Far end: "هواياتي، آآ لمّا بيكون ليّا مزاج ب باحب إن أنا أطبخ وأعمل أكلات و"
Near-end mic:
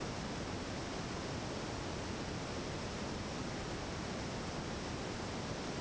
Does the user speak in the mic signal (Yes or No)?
No